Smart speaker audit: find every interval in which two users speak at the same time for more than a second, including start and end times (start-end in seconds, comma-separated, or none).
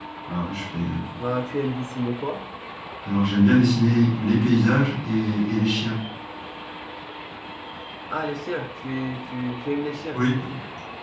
none